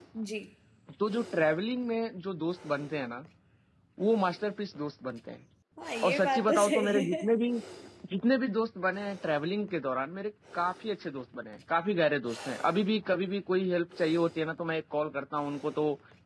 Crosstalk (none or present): present